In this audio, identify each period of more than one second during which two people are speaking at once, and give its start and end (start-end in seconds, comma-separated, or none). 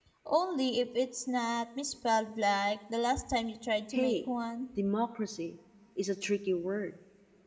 none